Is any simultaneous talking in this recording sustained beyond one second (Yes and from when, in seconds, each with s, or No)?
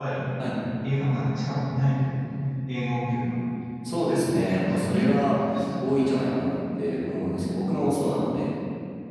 Yes, from 3.9 s